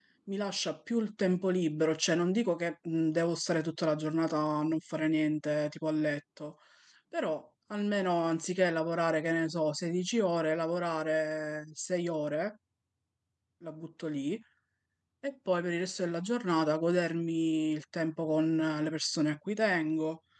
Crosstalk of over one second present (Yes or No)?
No